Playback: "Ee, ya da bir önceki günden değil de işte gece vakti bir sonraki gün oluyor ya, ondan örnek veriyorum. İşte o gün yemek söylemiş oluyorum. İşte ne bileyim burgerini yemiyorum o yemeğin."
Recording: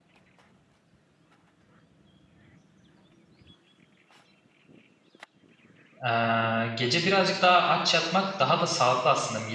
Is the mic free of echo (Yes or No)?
Yes